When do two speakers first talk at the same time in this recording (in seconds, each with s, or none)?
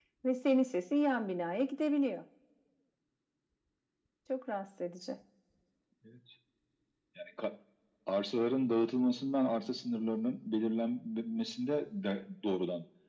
none